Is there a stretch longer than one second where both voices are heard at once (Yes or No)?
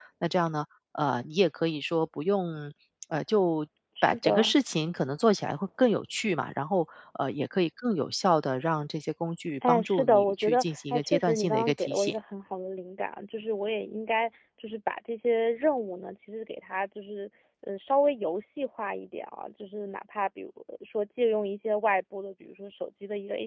Yes